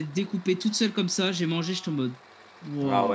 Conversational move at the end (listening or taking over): taking over